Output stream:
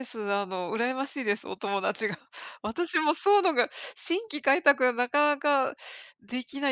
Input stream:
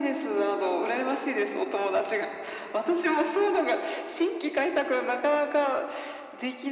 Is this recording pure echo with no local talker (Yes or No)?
Yes